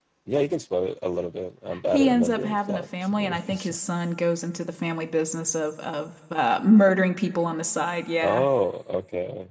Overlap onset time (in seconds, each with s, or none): 1.9 s